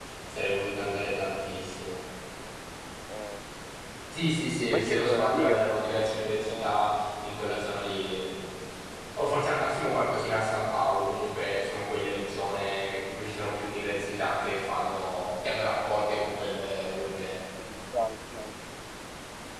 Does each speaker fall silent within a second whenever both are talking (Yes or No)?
No